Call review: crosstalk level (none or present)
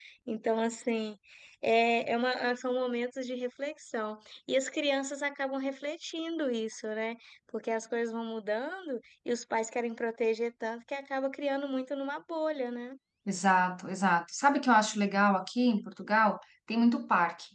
none